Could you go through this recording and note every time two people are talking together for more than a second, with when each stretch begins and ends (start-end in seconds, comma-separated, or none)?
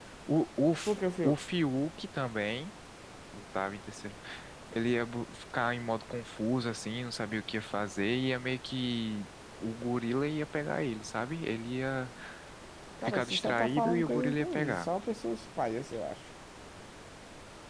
13.0-14.9